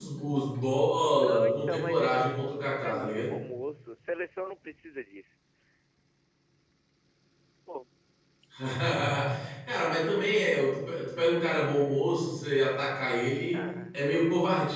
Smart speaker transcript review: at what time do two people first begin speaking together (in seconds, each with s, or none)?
1.2 s